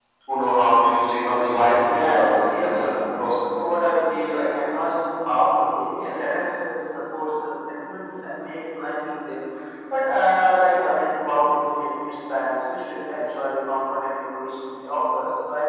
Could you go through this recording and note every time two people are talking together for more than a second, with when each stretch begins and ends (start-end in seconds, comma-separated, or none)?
1.8-3.1